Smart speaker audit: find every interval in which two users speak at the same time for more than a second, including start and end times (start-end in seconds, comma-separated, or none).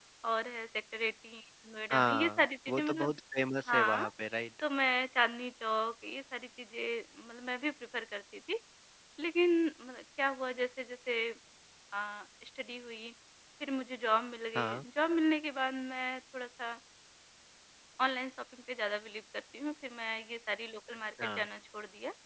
1.9-3.1